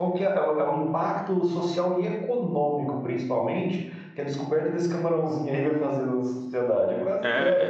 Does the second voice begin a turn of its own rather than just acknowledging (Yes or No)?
Yes